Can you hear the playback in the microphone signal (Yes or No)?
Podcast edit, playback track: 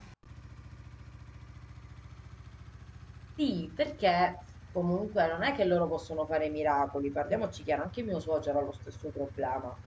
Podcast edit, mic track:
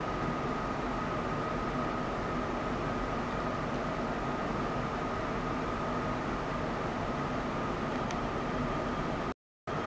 No